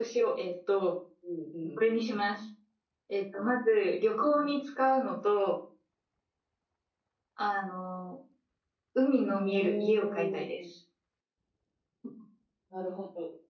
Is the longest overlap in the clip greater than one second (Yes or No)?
Yes